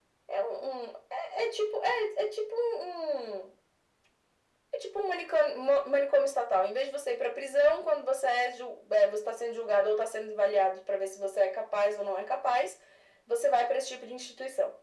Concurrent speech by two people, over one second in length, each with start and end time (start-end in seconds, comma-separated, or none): none